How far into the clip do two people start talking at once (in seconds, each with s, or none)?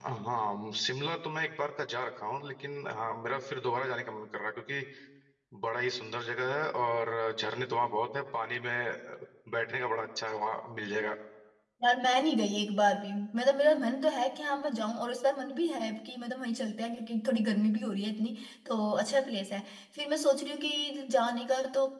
none